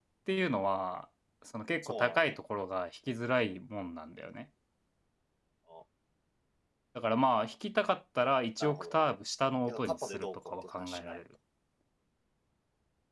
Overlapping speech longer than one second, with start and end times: 9.7-11.2

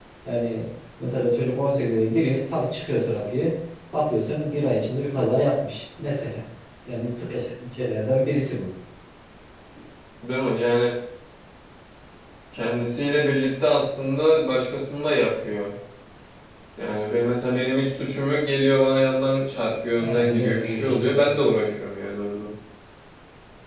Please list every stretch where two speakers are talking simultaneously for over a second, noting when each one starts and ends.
20.0-21.4

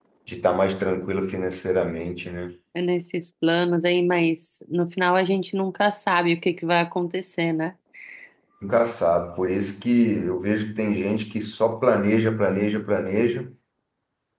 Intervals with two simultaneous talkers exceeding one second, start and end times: none

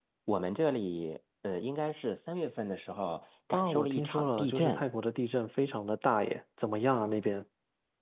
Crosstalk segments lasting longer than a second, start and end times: 3.5-4.8

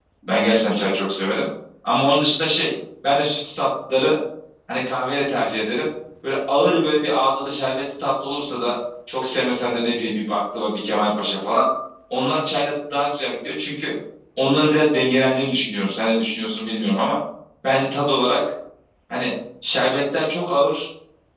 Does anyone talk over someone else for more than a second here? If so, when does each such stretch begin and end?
none

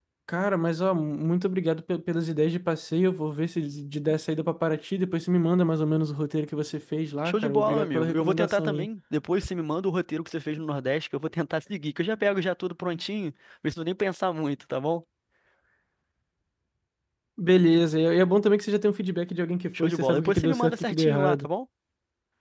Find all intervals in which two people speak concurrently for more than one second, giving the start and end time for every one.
7.2-8.9, 19.7-21.5

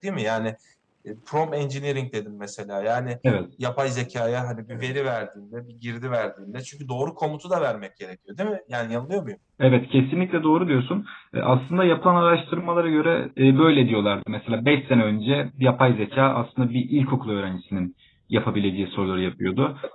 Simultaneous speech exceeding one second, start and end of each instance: none

